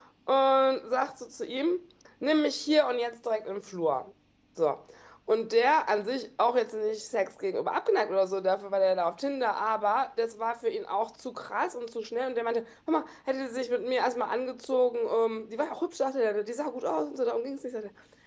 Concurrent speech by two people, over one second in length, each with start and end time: none

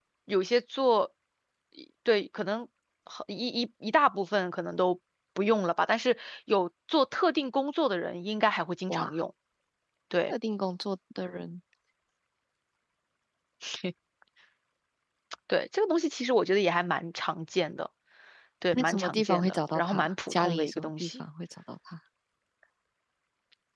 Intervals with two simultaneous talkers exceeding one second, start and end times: 18.7-21.1

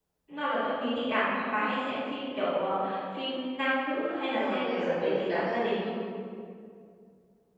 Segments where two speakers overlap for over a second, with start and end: 4.4-5.9

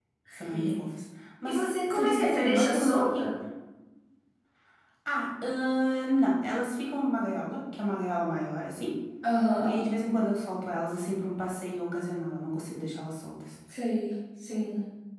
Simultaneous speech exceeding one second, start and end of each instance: 1.4-3.2

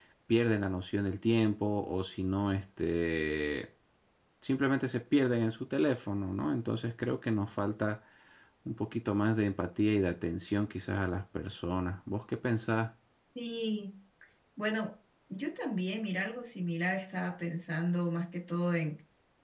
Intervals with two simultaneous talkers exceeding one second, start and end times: none

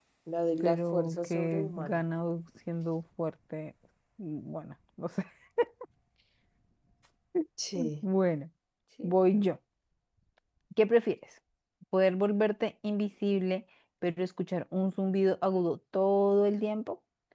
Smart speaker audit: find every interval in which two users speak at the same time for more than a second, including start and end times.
0.6-2.0

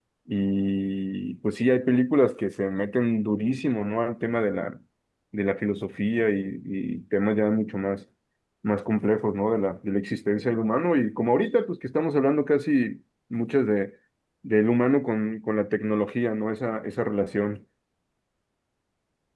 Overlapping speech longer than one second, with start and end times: none

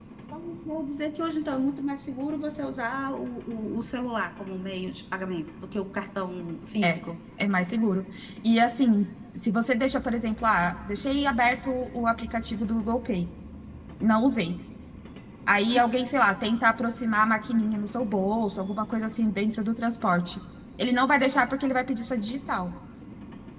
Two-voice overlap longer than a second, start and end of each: none

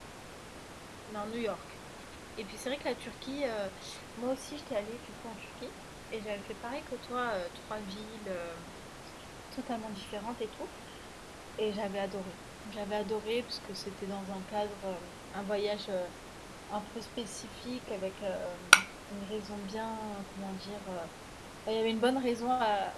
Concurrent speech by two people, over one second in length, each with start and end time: none

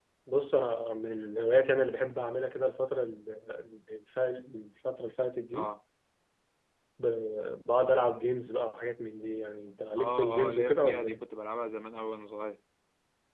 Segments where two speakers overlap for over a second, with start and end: 10.0-11.2

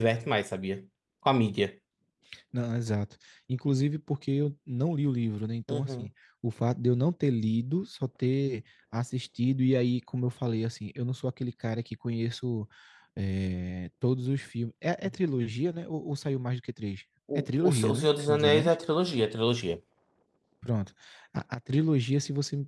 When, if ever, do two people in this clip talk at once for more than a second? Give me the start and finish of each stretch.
17.4-18.8

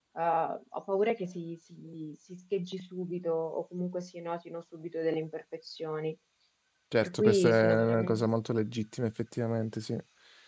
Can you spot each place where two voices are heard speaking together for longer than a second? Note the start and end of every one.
7.0-8.2

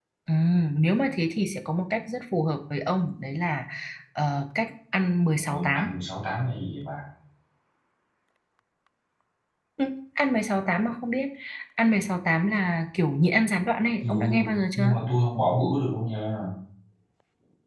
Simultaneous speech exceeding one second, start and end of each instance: none

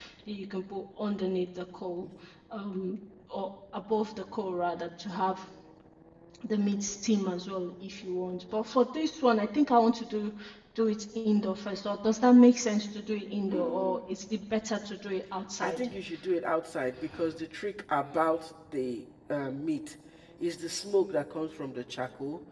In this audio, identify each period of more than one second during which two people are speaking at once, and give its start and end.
none

